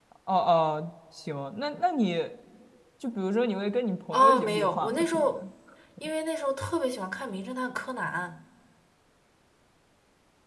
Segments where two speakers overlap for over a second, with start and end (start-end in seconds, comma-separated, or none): 4.1-5.4